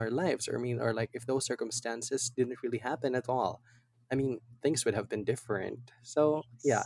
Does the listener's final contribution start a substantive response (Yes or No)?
No